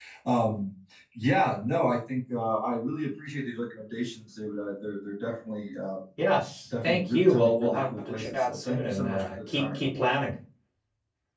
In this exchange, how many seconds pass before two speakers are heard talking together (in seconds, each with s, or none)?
6.8 s